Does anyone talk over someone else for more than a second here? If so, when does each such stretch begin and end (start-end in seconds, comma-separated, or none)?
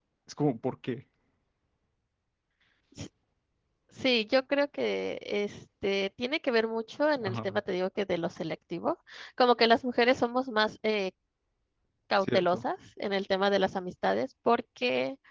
none